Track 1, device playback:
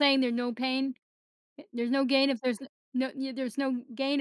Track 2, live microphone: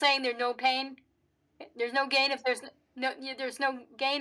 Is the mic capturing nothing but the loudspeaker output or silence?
Yes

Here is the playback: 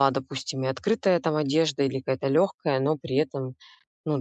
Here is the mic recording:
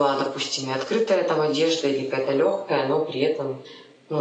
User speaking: No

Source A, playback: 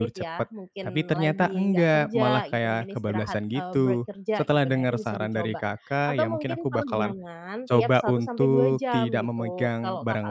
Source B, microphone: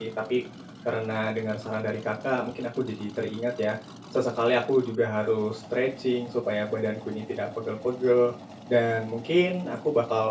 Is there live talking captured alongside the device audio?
Yes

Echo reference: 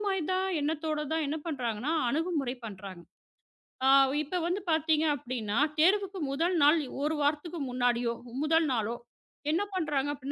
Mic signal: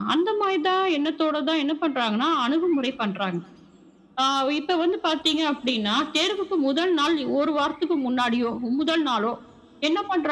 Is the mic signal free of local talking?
Yes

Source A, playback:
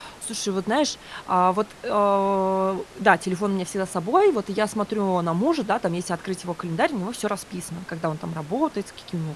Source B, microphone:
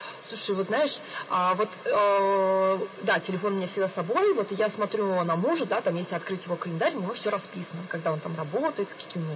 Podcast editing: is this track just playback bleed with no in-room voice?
Yes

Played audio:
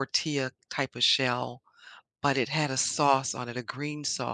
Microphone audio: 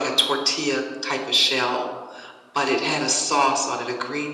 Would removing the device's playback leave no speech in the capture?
Yes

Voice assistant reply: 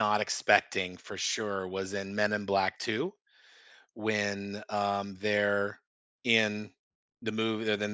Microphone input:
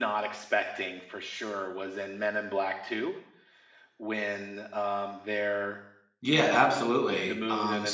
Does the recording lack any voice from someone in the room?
No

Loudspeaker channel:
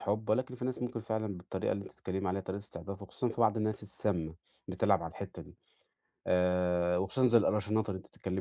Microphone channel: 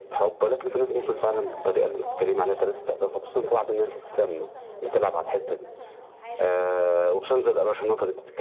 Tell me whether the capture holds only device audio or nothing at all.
No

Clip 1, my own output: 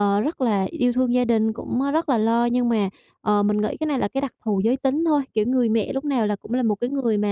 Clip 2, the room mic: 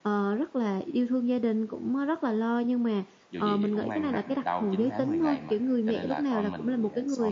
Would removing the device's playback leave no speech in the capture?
No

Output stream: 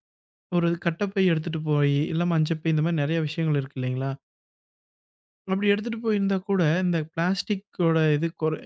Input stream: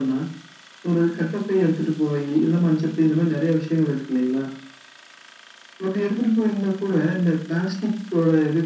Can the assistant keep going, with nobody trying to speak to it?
Yes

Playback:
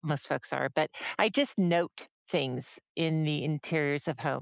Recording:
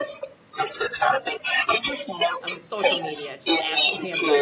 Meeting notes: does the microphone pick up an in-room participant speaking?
Yes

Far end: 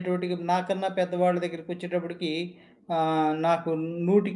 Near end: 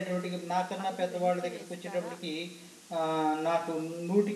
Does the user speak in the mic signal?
Yes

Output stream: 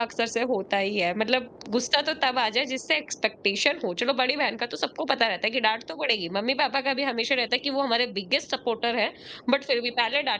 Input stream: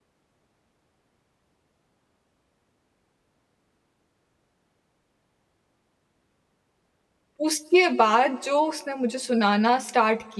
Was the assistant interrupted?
Yes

